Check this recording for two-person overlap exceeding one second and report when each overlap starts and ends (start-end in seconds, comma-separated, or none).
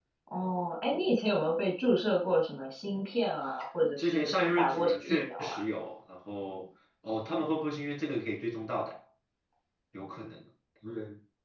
4.0-5.6